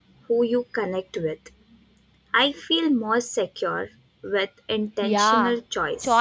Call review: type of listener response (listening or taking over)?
taking over